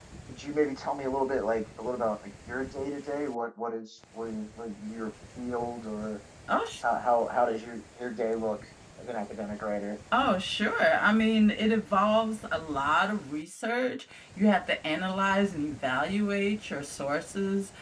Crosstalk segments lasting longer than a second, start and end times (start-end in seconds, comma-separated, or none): none